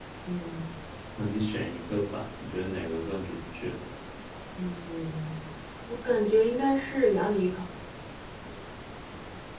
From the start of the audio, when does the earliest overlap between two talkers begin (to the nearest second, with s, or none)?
none